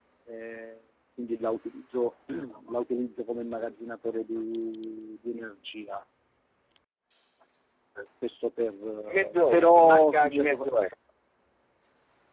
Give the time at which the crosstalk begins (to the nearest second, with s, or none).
9 s